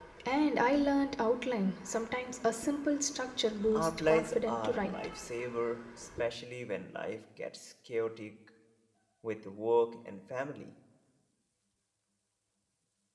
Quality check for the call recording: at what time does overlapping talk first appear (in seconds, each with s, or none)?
3.6 s